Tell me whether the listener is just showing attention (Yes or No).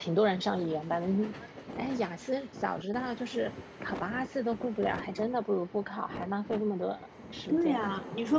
No